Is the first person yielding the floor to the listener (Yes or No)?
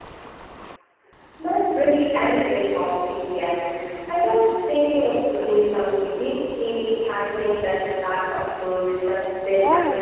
Yes